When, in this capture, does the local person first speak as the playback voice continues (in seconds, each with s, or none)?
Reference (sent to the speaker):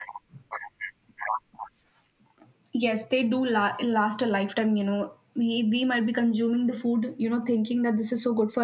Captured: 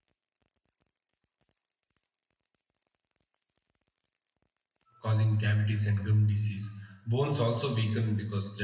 5.0 s